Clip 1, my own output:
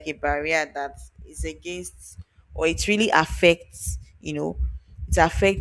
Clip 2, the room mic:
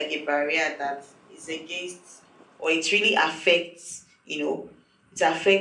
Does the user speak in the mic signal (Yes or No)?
No